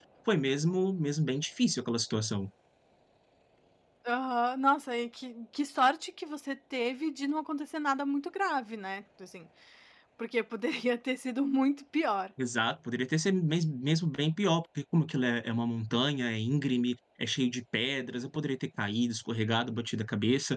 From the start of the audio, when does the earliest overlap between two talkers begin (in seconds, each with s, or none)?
none